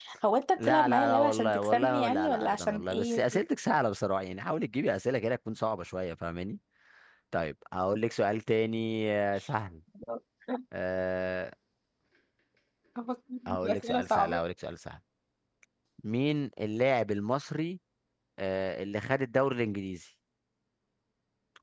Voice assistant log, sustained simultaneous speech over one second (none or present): present